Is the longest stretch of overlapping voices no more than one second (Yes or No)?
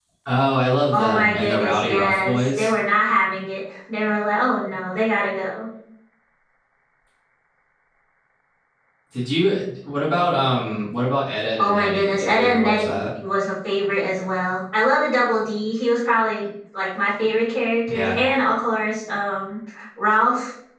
No